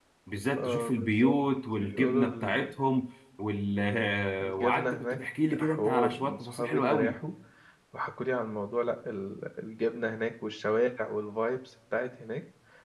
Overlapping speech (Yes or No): Yes